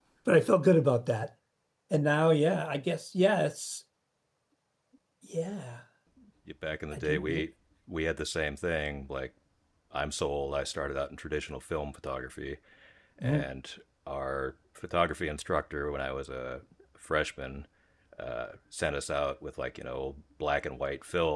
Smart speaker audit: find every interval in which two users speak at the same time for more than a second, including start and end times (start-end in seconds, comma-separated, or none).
none